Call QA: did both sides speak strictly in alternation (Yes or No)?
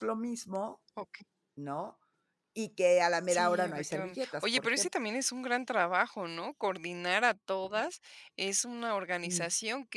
No